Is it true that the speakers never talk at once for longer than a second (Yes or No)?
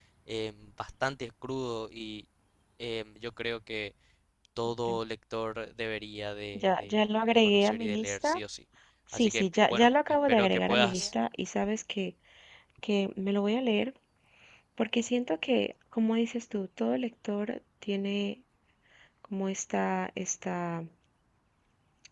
No